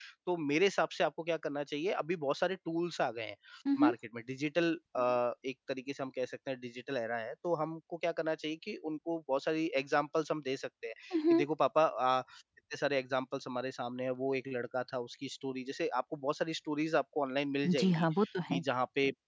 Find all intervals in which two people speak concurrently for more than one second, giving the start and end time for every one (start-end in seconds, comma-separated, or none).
none